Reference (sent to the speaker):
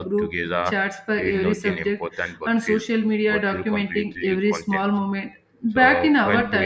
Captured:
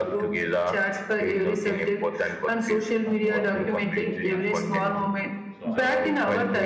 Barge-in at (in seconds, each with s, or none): 3.0 s